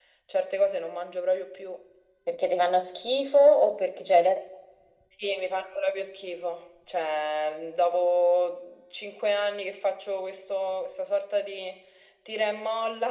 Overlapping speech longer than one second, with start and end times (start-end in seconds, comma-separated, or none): none